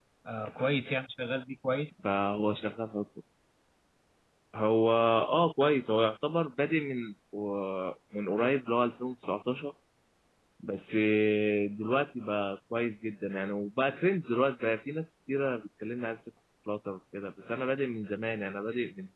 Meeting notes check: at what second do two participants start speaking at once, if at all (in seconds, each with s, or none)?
none